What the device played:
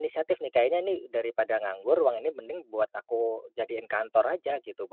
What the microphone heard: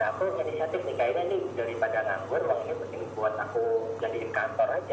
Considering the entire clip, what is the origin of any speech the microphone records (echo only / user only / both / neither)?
echo only